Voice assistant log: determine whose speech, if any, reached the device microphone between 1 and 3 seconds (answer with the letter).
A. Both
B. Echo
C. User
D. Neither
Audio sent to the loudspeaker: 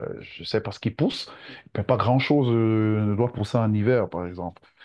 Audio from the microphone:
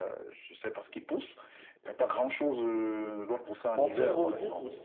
B